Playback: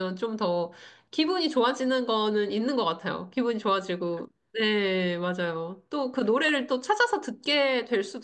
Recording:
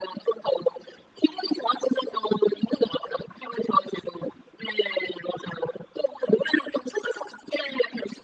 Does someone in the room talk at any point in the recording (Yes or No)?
No